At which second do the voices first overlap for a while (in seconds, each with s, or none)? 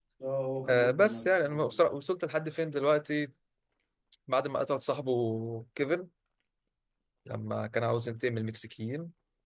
0.7 s